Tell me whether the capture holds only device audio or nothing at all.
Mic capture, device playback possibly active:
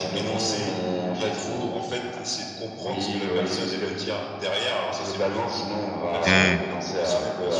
No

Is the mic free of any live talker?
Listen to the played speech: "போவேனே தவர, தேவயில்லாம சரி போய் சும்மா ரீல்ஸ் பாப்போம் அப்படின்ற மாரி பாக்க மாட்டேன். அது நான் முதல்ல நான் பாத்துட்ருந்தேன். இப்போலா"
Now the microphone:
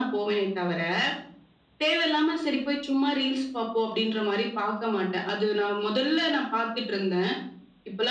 Yes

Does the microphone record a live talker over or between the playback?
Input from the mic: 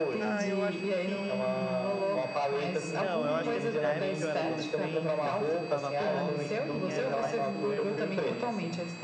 Yes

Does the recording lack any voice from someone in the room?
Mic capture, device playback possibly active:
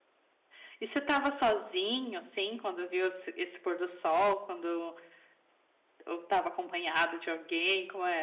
No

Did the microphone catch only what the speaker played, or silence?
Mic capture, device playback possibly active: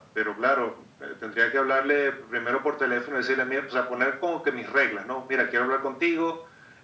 Yes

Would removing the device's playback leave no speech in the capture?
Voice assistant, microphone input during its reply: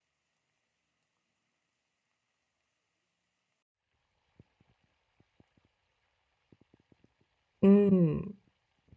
No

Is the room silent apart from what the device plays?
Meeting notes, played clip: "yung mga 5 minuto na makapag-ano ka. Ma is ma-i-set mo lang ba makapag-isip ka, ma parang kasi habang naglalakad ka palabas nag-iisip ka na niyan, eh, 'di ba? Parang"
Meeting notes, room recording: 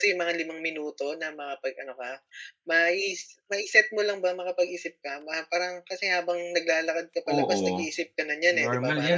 No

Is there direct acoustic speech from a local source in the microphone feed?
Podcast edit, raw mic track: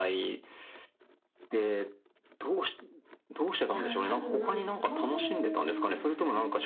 Yes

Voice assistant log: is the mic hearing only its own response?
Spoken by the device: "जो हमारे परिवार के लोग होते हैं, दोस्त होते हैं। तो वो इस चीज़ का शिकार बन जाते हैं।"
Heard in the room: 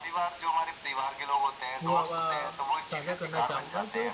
No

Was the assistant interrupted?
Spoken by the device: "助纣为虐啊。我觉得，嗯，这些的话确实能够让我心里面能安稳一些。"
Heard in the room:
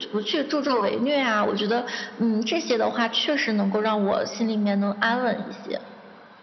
No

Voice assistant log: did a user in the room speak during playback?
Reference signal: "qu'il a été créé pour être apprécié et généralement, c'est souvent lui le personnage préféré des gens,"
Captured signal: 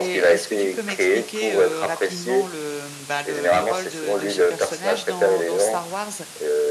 Yes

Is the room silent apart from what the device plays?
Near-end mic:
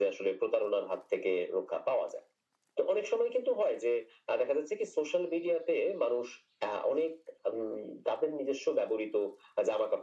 Yes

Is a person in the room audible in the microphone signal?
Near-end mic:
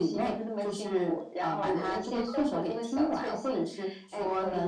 No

